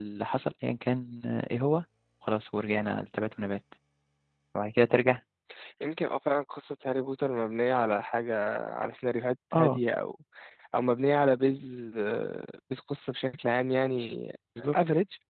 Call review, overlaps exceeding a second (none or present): none